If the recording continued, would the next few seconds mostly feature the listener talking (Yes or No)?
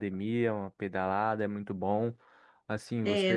No